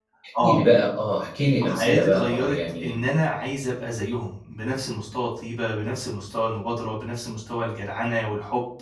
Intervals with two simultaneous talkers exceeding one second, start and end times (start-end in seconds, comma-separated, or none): 1.6-3.0